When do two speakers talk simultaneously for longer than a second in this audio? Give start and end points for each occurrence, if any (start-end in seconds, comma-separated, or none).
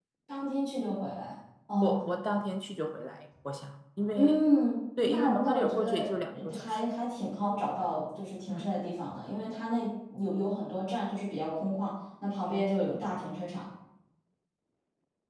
5.0-6.8